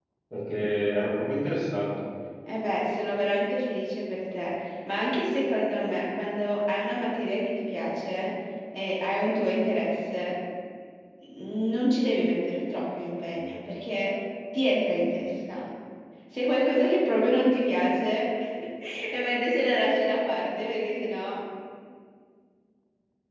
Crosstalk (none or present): none